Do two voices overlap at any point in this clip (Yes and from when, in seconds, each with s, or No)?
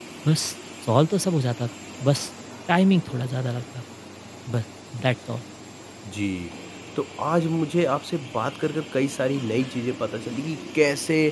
No